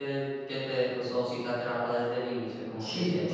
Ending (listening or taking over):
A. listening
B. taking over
B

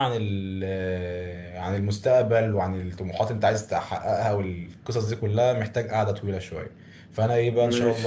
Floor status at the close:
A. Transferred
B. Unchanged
B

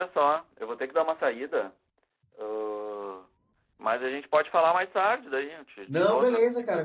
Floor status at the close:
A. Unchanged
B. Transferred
B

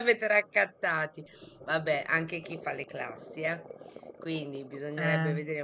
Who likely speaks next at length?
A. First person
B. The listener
A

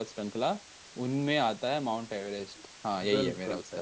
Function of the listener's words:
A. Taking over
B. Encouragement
A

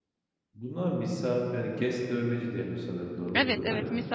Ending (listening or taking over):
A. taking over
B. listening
A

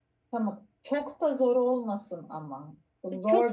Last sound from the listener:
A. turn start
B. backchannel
A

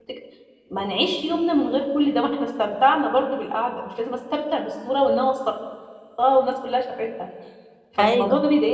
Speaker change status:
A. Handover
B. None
B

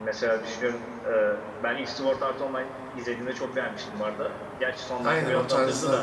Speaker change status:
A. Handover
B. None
A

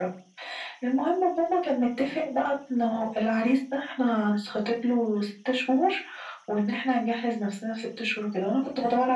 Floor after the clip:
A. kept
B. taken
A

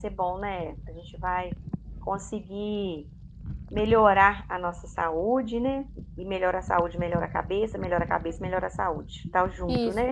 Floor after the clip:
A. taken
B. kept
A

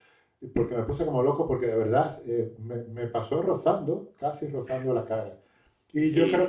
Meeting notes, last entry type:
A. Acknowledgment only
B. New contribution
A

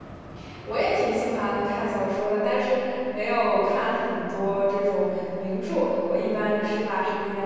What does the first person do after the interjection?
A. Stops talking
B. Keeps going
B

